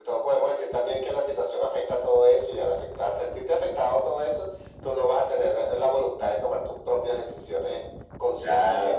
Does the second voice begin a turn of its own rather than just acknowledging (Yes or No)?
Yes